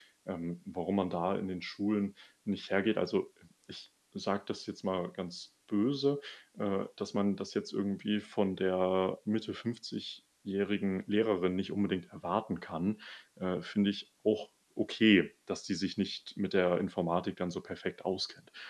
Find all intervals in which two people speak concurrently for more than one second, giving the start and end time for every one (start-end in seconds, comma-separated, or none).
none